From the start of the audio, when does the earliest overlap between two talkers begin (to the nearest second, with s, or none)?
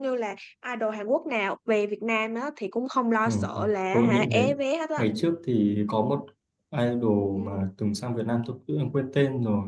3 s